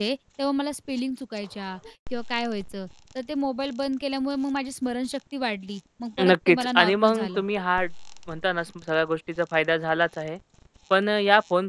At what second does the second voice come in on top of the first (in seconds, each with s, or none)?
6.2 s